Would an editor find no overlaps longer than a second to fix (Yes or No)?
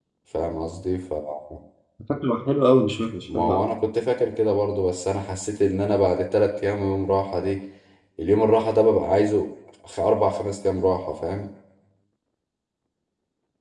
Yes